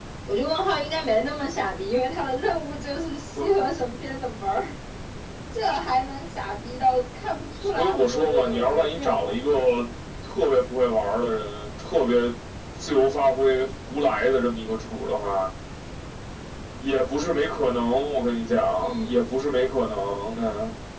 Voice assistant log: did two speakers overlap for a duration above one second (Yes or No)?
Yes